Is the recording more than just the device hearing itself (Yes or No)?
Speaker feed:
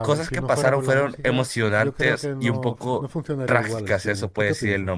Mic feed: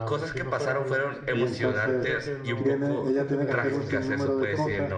Yes